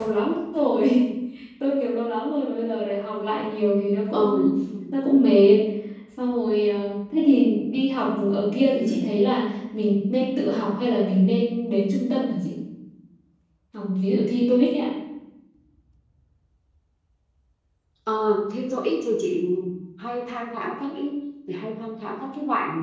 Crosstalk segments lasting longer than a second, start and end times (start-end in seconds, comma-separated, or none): none